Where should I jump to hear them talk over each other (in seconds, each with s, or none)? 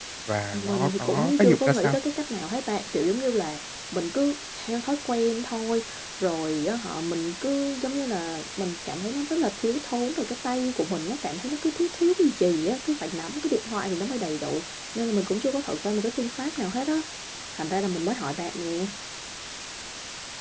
0.5 s